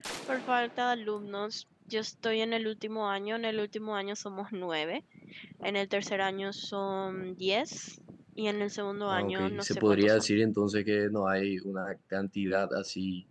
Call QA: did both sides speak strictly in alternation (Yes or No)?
No